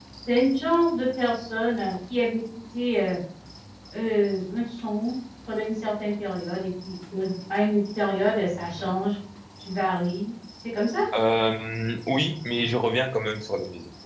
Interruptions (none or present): none